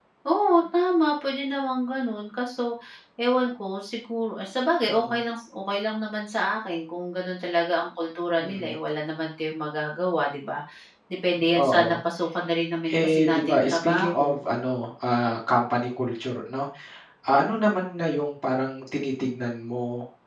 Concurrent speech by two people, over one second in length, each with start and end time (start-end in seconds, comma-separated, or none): 12.9-14.4